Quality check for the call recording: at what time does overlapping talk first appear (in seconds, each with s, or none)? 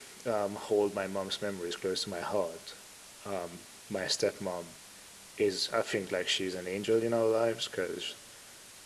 none